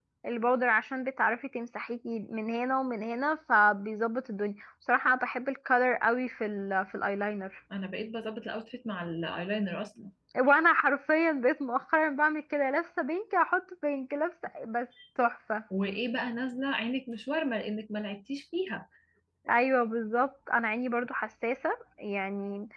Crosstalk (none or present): none